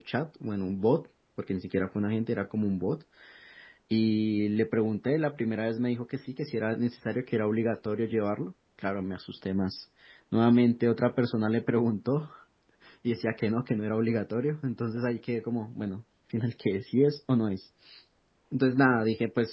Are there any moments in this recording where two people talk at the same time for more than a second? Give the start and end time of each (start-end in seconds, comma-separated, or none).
none